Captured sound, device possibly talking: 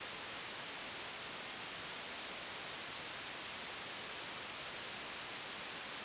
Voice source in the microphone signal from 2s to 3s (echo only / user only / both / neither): neither